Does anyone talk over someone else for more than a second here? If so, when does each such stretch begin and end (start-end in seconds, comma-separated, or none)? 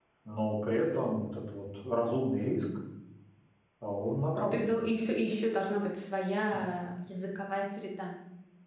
none